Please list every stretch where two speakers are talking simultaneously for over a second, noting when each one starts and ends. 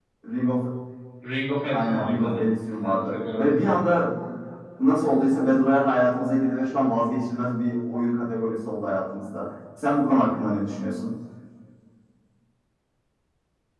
1.7-3.8

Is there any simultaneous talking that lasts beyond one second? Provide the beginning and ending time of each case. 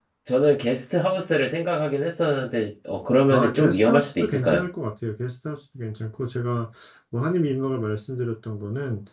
3.3-4.7

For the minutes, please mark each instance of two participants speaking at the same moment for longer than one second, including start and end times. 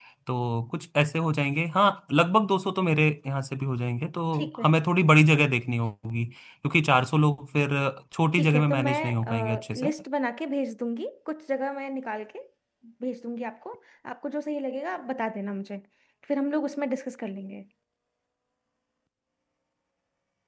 8.3-9.9

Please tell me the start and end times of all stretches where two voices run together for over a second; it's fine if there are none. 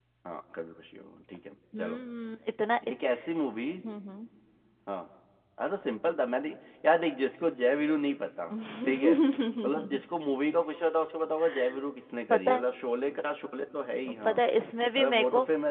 none

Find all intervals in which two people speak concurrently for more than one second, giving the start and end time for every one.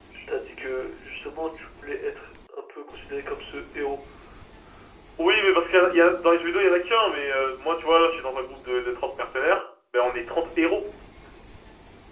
none

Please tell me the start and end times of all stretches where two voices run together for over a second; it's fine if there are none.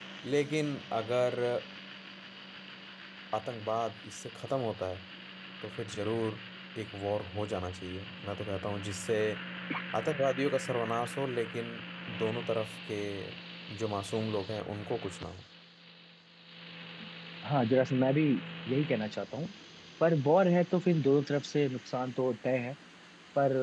none

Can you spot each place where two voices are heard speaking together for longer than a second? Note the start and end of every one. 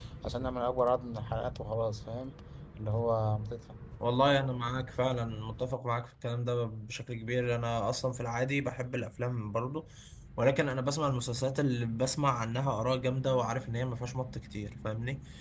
none

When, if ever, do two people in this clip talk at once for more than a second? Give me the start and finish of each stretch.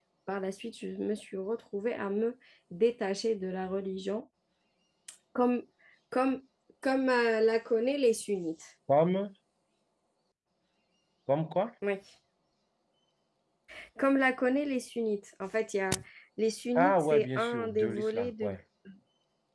16.8-18.6

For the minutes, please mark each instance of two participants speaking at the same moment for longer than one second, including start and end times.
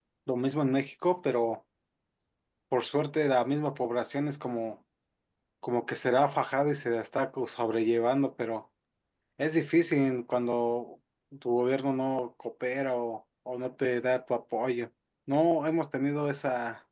none

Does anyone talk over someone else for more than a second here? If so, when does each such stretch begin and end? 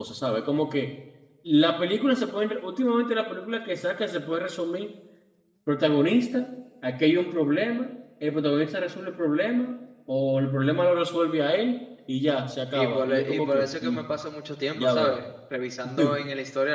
12.7-14.0

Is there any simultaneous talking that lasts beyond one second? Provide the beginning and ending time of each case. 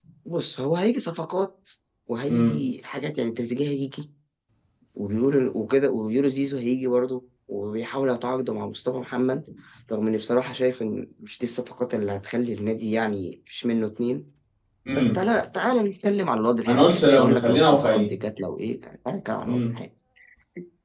16.6-18.1

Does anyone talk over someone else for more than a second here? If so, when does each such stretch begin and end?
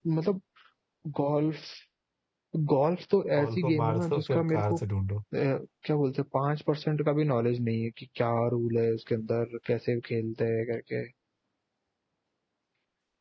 3.4-4.8

